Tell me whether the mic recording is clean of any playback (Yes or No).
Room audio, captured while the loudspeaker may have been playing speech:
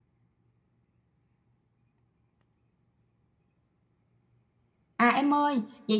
Yes